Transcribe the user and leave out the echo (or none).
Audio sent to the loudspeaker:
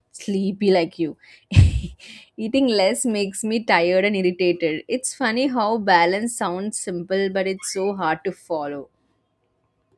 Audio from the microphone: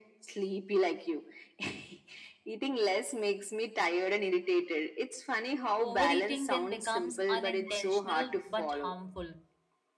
Overeating then becomes unintentional but harmful